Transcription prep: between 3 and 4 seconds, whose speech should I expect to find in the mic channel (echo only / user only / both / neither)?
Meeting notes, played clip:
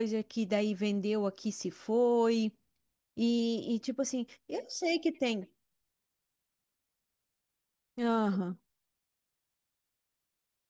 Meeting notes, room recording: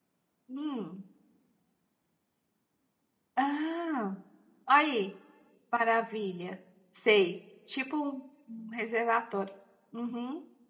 user only